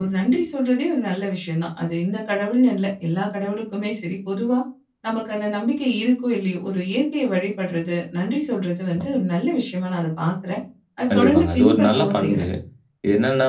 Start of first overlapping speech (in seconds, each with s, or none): 11.1 s